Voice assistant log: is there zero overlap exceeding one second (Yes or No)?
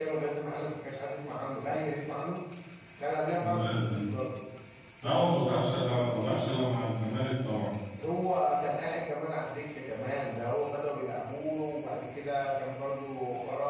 No